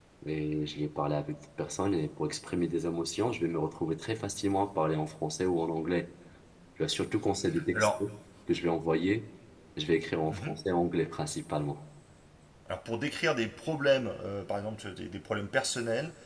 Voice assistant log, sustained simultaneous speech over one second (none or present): none